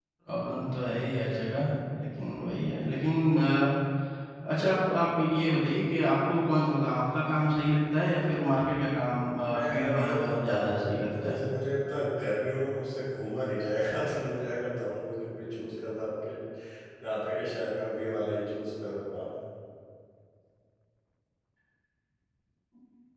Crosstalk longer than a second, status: present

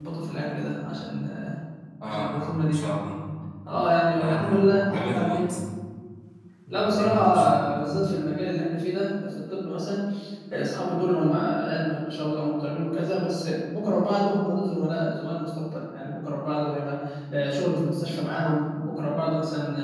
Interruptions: present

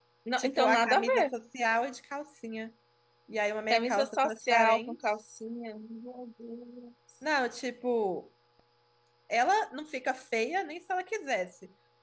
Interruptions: present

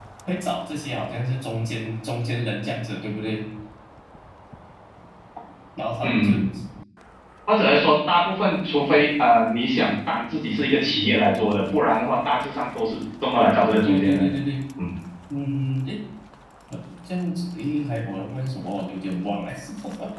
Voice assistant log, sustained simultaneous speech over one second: none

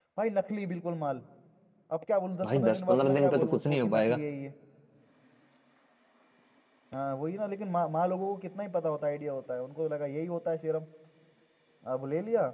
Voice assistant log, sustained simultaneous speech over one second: present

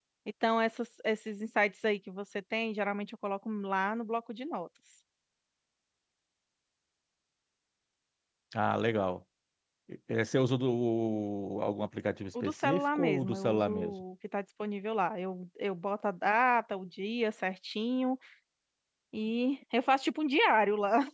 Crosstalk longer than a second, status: present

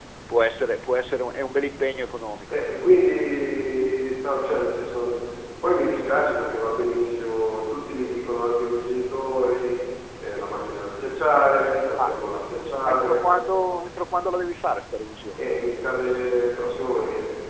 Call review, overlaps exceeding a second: none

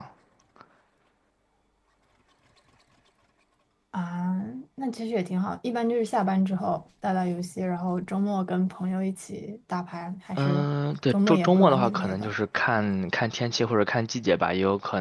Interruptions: present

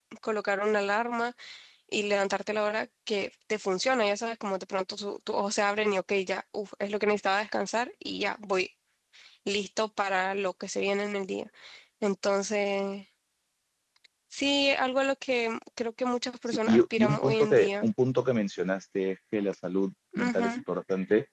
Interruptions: present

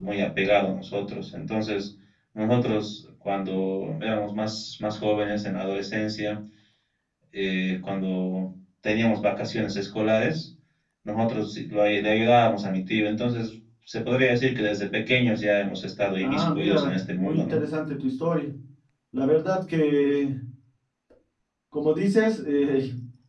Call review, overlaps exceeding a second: present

